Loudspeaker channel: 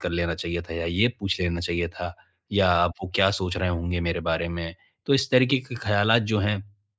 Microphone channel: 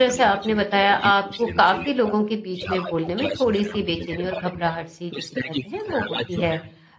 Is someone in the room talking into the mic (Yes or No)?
Yes